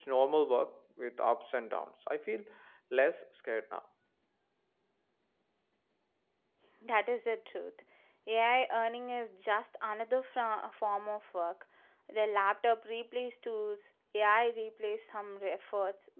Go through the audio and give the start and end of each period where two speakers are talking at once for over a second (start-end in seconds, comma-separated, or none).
none